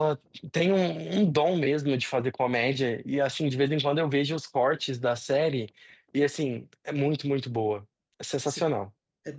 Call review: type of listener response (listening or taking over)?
taking over